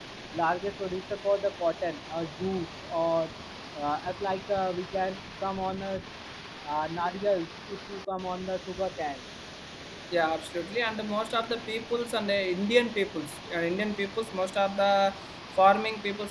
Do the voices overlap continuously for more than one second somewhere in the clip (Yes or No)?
No